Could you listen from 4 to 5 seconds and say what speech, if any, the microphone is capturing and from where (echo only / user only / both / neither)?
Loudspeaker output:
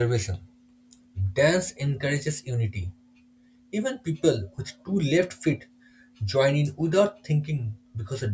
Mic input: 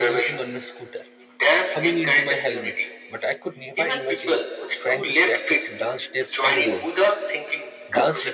both